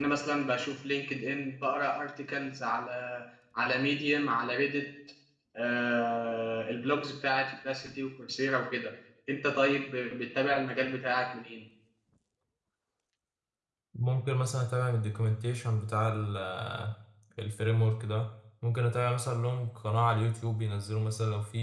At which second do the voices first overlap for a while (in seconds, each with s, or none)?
none